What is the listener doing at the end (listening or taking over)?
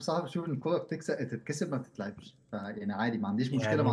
listening